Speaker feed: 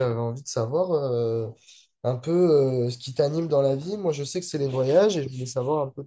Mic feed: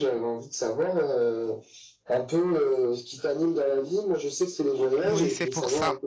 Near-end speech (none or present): present